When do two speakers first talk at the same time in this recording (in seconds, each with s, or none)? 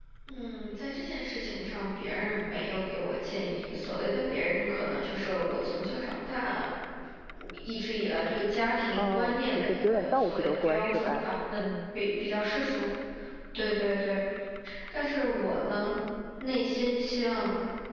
9.0 s